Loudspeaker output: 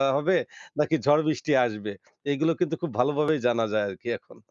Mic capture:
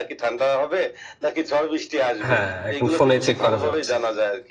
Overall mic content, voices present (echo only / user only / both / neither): both